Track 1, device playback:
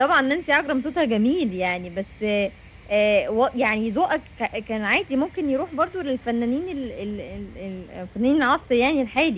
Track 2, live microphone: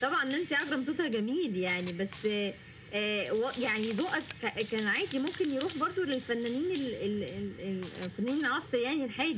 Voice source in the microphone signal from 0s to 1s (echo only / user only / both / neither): echo only